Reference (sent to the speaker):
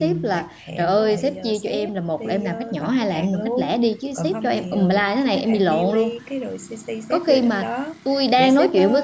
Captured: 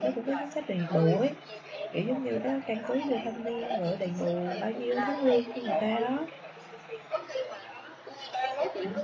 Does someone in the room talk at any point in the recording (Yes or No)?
Yes